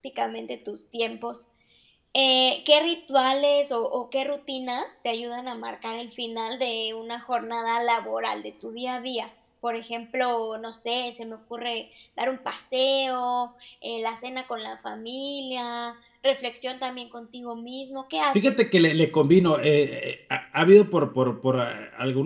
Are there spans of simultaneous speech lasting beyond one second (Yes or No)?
No